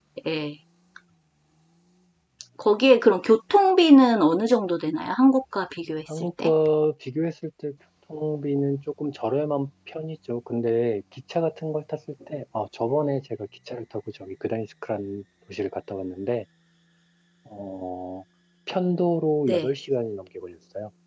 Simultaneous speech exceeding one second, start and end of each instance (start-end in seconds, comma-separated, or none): none